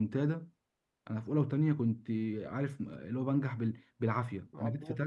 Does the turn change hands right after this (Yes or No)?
No